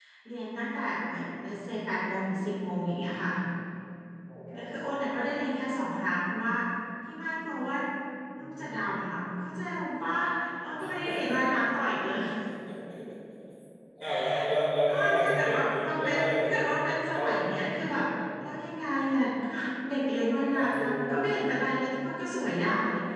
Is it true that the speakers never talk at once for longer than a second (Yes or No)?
No